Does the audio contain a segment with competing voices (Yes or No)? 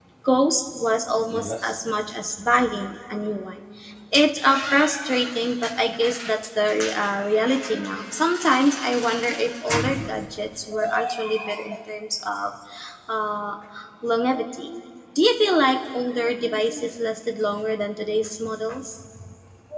No